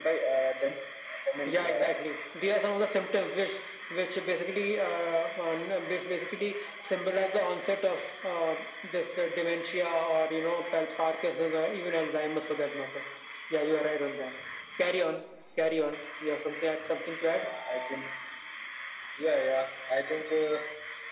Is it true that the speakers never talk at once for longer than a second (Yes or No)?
Yes